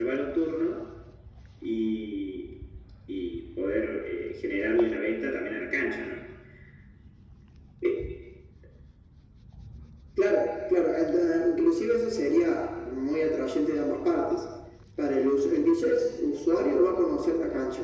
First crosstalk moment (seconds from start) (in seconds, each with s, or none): none